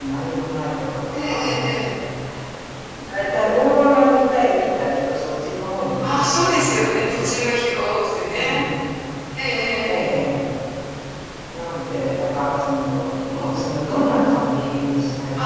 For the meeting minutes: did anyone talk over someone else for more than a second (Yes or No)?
Yes